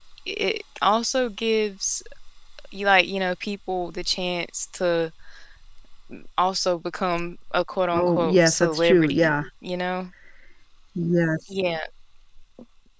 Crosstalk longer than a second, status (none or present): present